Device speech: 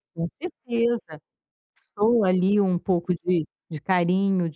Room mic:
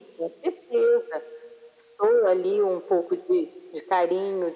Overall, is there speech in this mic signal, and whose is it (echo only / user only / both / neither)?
echo only